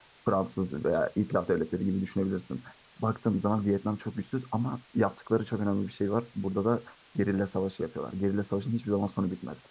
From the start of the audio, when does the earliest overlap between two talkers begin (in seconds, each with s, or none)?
none